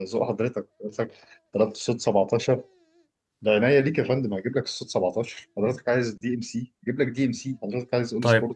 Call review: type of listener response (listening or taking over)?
taking over